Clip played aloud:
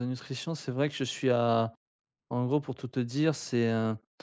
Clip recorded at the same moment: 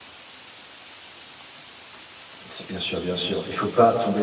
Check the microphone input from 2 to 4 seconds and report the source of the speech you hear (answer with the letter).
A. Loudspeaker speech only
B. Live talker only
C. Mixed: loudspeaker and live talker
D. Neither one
B